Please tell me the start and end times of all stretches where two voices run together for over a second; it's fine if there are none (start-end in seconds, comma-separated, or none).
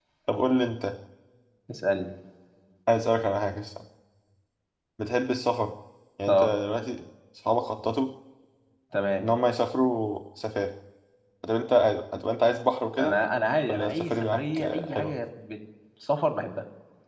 13.7-15.1